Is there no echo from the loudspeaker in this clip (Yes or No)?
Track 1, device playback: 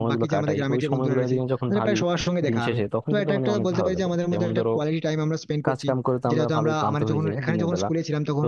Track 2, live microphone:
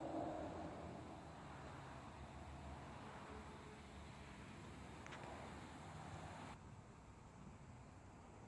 Yes